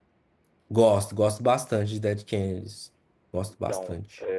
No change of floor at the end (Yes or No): No